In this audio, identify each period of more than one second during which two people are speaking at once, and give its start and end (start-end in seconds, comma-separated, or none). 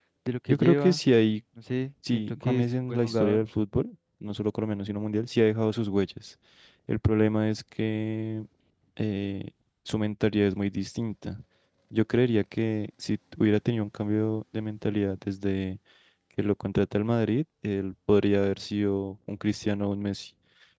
2.1-3.4